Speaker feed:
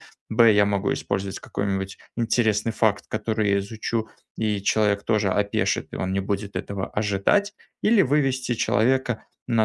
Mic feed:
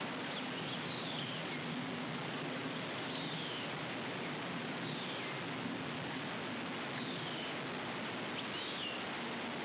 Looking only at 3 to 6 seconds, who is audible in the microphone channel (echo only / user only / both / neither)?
neither